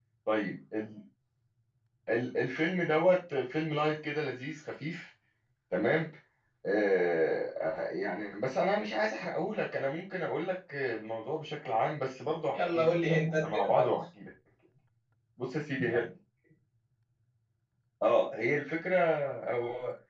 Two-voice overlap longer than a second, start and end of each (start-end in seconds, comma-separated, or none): 12.6-13.9